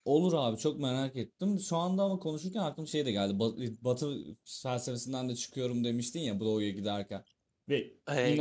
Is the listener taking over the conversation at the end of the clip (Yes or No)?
Yes